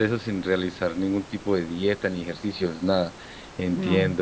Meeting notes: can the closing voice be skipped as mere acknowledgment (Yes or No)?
Yes